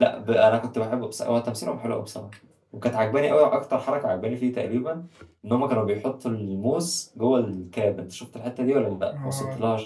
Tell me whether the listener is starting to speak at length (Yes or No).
Yes